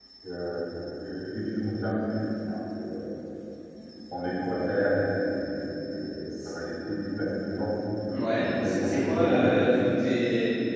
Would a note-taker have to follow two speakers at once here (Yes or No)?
Yes